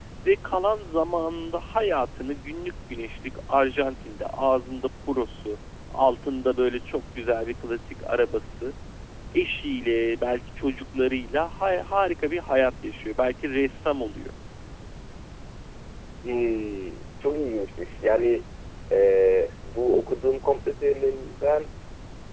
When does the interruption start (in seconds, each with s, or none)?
none